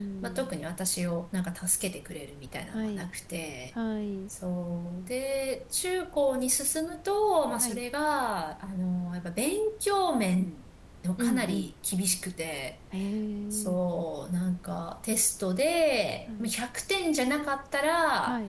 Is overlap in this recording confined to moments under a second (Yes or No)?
Yes